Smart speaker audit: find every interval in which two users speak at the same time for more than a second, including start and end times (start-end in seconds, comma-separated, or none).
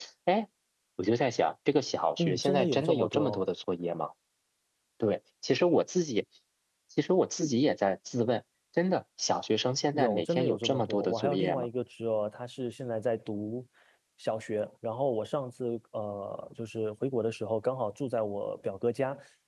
2.2-3.4, 9.9-11.7